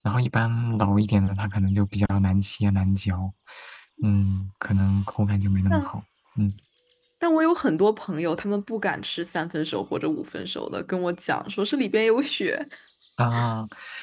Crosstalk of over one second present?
No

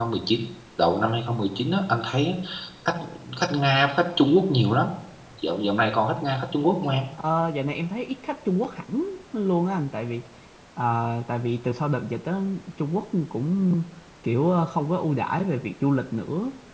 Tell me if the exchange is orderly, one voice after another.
Yes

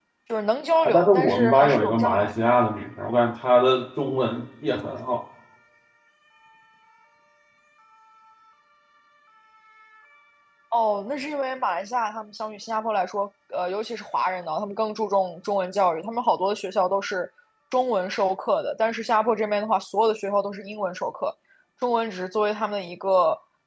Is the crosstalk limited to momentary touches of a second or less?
No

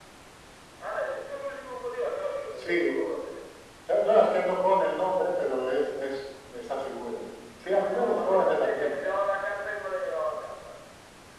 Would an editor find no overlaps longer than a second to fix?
No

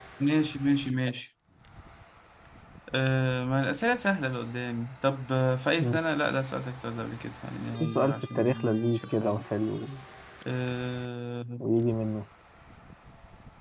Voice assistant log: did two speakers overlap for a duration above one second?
Yes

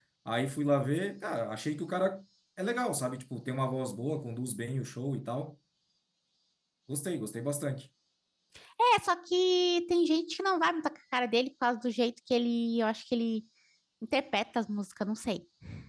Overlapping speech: No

